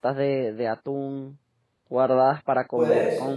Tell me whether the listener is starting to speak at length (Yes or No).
No